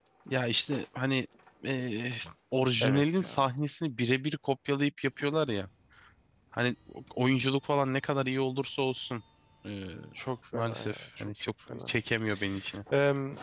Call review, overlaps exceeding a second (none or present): present